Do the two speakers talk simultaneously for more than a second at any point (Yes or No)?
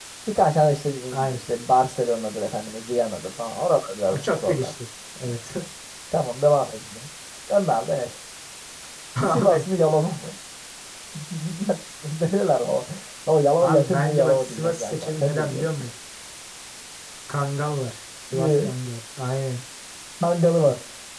Yes